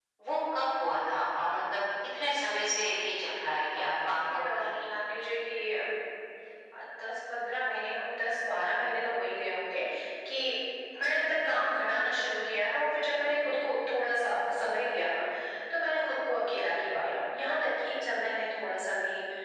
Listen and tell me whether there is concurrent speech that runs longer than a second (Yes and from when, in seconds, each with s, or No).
Yes, from 3.8 s